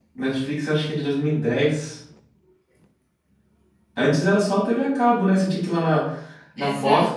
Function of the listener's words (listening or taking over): listening